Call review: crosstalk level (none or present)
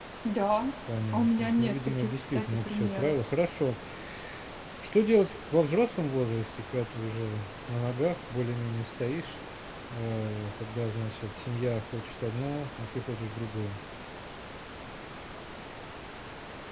present